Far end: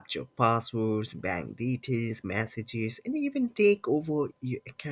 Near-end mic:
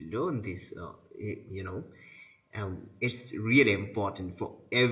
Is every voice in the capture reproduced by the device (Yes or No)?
No